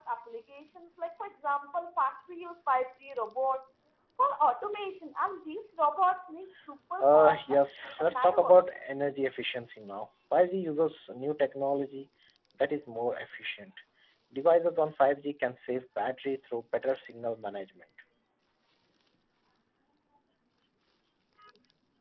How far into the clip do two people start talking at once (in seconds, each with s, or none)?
7.0 s